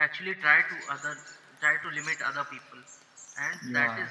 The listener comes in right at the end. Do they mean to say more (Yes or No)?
No